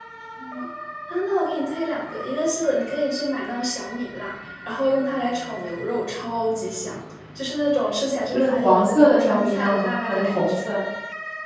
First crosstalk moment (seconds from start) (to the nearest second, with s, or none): 8 s